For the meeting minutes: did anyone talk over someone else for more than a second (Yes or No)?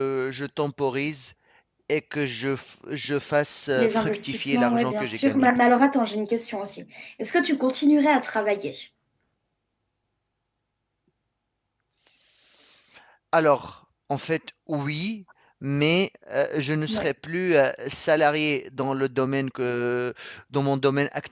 Yes